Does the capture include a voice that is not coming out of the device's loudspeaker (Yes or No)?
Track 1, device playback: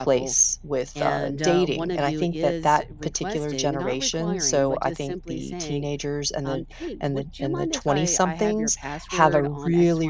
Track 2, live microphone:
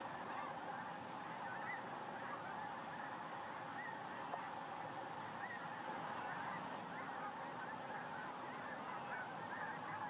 No